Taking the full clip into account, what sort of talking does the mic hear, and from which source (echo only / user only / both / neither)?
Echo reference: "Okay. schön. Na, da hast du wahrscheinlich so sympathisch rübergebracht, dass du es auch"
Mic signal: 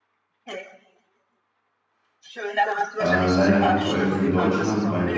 both